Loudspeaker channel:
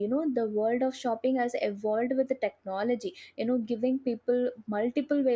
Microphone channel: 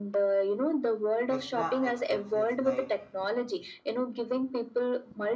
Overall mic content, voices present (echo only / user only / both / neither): both